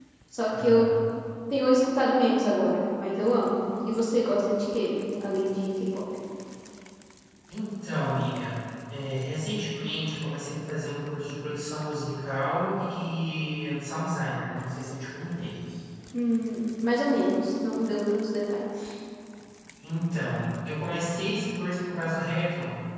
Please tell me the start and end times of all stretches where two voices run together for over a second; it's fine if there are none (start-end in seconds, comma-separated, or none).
none